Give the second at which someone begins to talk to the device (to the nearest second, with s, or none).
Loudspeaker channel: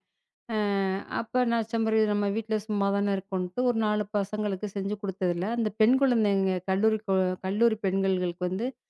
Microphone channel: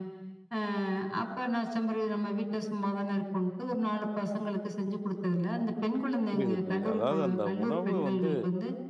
6 s